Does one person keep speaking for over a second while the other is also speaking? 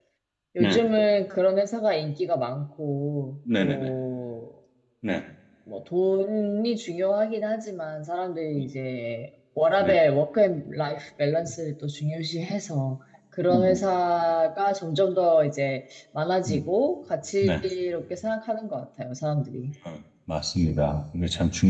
No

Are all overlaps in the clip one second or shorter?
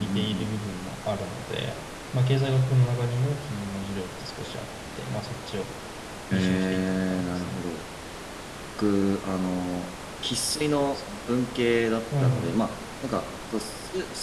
No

